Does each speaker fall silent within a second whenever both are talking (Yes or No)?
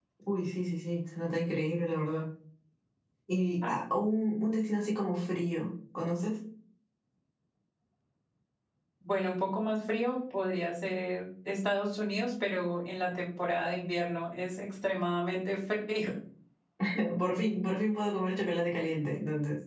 Yes